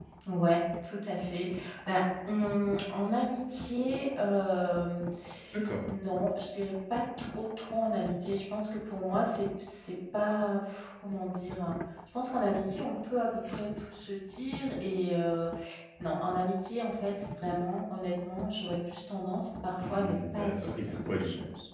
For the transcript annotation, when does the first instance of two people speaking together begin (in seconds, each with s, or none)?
19.8 s